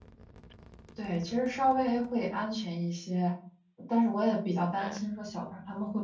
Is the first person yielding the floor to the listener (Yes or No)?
No